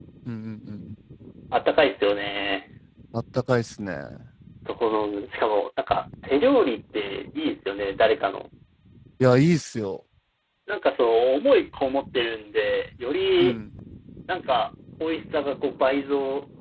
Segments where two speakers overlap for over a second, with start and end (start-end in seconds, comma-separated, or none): none